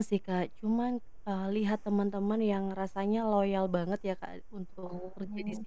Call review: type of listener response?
listening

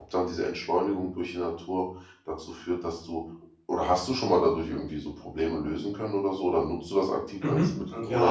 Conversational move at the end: taking over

